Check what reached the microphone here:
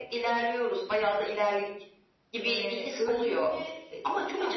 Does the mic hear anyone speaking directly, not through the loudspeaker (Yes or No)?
Yes